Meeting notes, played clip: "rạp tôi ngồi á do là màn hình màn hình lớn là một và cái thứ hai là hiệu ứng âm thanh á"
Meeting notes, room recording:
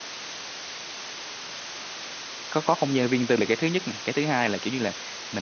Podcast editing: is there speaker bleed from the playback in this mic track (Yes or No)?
No